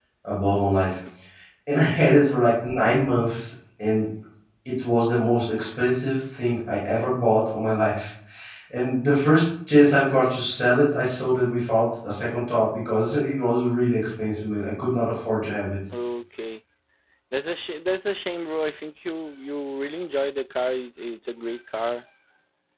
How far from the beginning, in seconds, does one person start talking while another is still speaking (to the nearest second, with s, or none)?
none